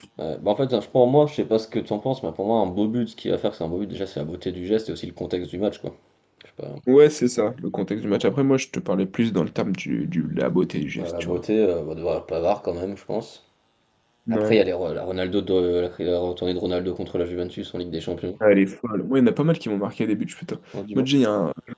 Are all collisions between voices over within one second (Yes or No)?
Yes